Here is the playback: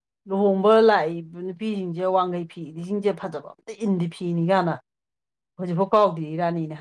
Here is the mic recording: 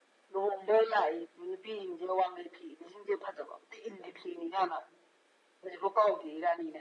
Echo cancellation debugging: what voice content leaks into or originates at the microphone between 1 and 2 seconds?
echo only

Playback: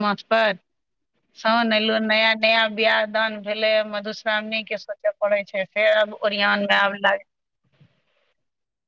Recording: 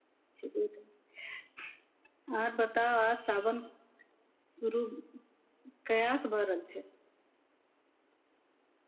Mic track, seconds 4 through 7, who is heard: user only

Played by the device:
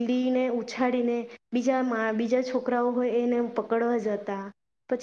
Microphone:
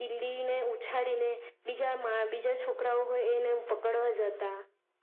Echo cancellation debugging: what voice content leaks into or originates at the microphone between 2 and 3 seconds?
echo only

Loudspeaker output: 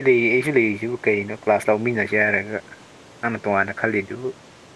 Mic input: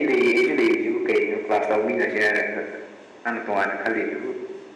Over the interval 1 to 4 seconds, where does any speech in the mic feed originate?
echo only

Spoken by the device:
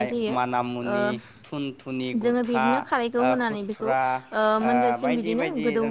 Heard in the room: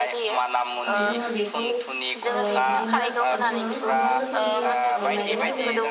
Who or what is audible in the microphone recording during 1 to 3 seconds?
both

